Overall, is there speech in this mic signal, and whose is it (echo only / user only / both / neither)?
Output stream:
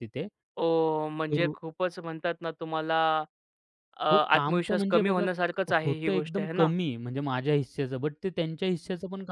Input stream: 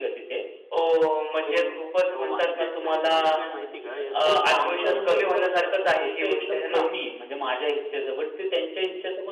both